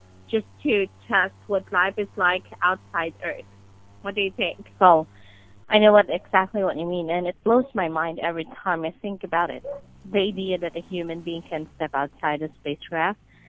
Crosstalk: none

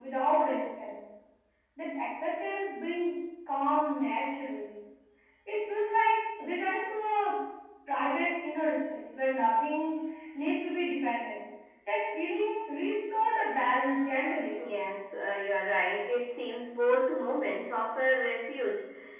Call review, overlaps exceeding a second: none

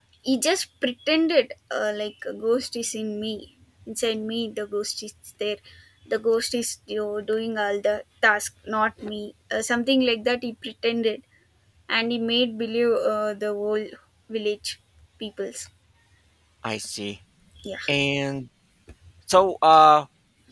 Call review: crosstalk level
none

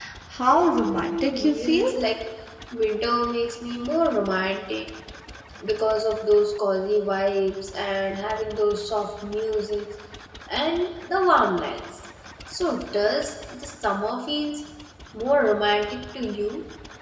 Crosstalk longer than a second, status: present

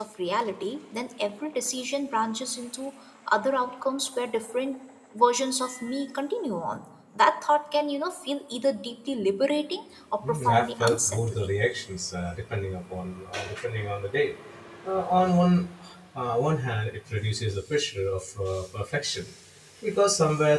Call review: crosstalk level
present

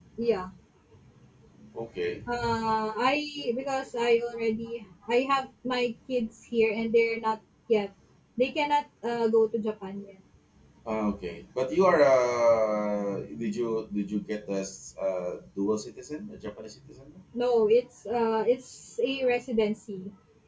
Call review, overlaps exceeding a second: none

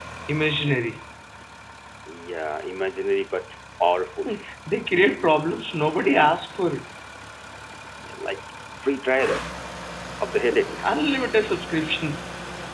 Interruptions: none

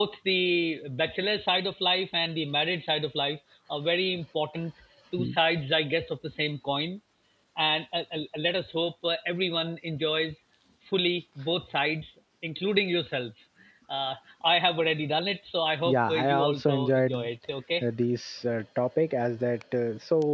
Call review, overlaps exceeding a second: present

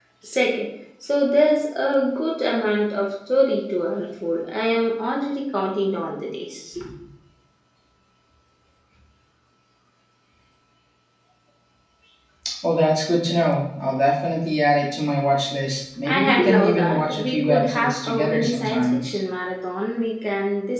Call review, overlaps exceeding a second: present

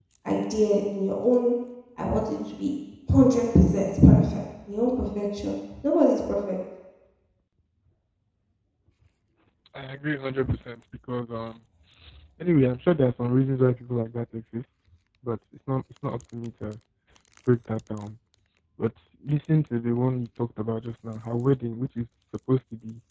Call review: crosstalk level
none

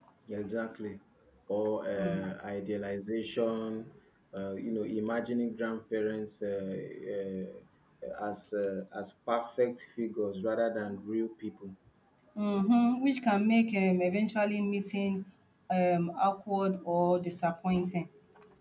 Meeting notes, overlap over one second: none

